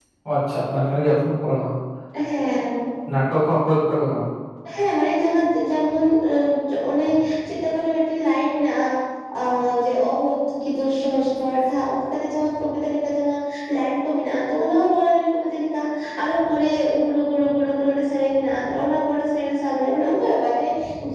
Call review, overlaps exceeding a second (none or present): none